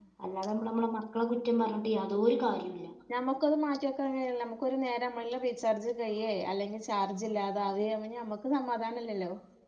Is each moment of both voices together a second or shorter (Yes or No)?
Yes